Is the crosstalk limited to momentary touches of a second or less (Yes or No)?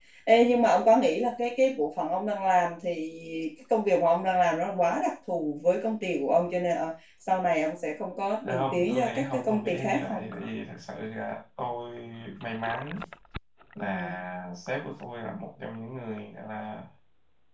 No